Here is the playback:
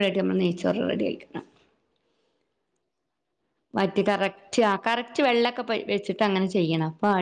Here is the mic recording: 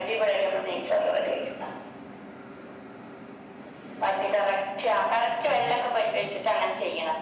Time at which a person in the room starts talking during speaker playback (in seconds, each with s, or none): none